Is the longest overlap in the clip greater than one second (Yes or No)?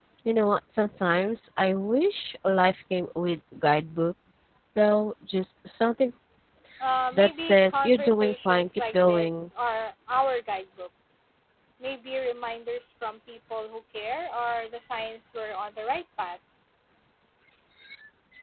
Yes